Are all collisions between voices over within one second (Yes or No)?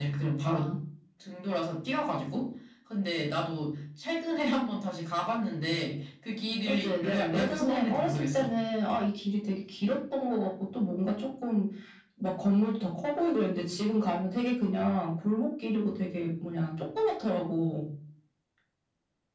No